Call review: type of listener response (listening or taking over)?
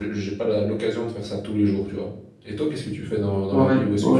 taking over